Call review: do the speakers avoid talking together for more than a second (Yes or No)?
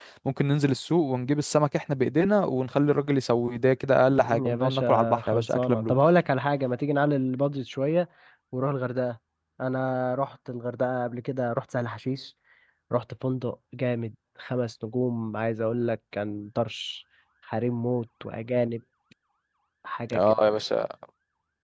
No